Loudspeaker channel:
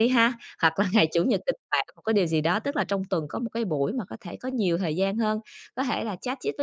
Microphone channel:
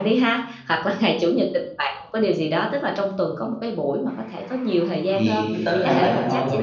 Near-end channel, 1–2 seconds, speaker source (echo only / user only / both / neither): echo only